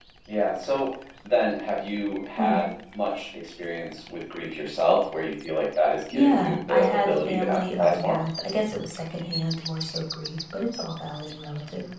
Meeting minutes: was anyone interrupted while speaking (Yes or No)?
Yes